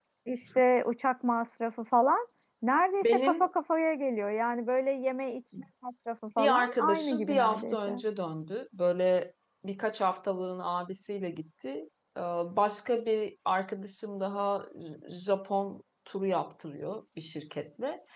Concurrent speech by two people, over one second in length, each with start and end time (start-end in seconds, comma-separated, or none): 6.4-7.9